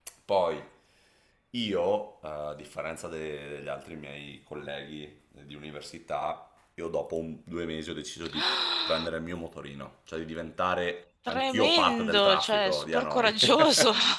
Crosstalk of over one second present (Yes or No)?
Yes